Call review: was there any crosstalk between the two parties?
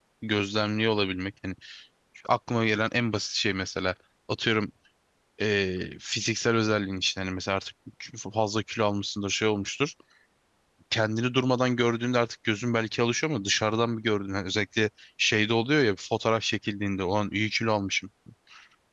No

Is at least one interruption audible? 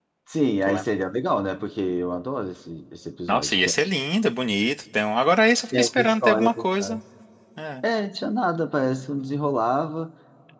Yes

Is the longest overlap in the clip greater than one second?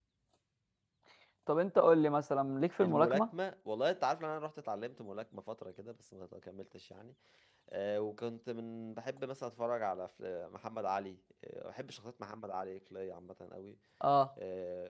No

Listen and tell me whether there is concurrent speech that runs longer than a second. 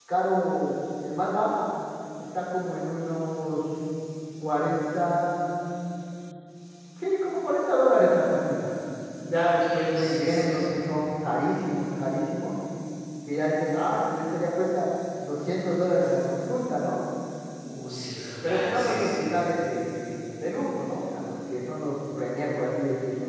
Yes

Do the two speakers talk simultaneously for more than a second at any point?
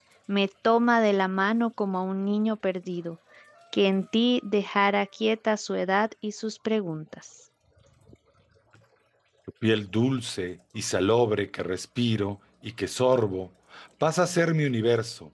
No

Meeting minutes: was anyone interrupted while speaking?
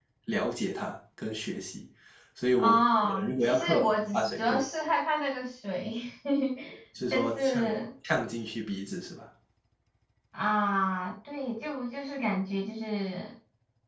Yes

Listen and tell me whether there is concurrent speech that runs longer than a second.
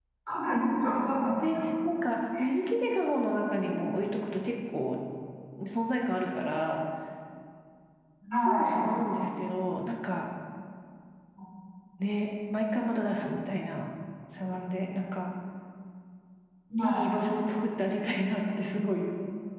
No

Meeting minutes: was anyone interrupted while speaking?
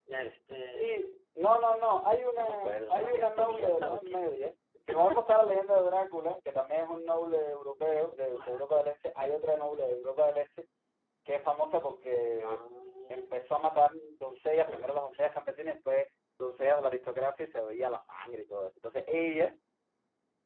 Yes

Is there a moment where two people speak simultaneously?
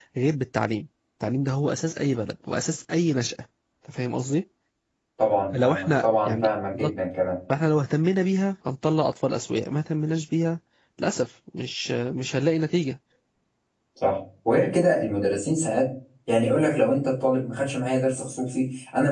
Yes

